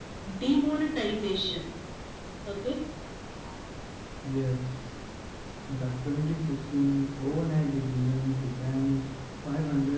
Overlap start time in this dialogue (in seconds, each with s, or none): none